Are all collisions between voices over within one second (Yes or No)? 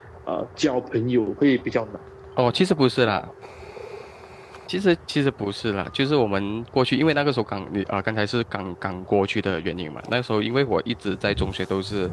Yes